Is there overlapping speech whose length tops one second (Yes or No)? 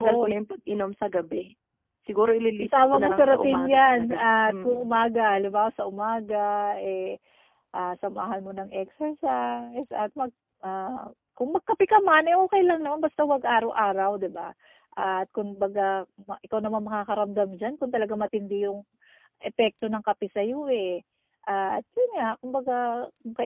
Yes